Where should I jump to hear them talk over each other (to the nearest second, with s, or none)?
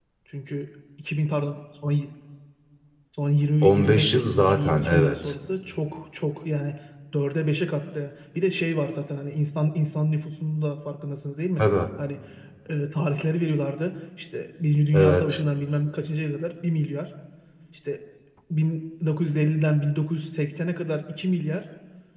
4 s